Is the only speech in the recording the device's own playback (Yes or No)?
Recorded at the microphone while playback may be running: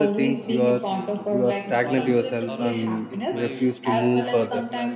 No